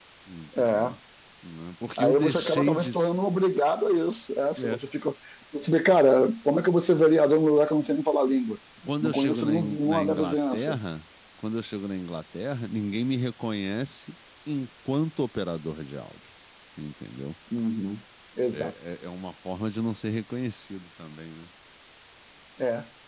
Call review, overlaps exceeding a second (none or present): present